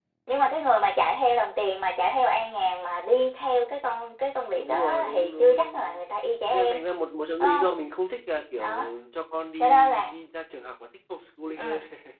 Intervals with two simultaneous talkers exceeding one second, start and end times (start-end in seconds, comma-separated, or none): 4.6-6.0